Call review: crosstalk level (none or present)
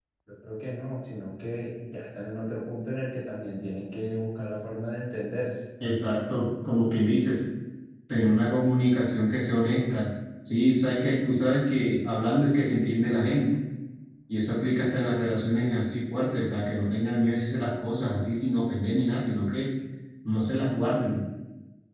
none